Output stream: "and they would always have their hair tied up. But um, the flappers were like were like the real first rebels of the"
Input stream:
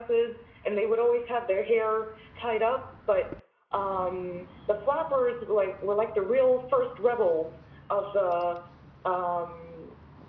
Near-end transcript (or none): none